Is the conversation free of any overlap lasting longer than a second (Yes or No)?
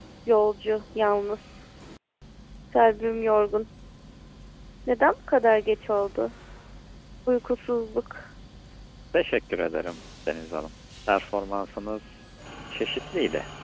Yes